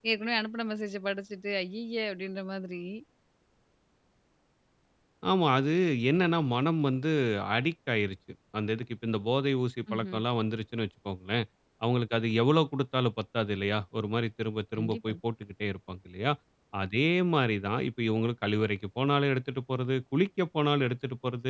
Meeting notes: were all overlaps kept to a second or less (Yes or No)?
Yes